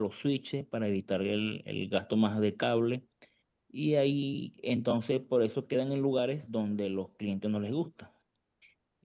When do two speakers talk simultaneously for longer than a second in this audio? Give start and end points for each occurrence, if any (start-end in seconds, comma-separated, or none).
none